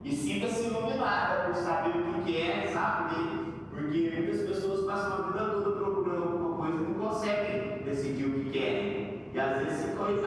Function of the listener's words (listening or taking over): listening